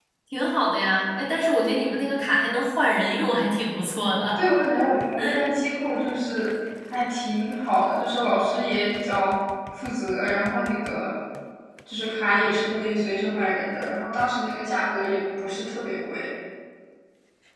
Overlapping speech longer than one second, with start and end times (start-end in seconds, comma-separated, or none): none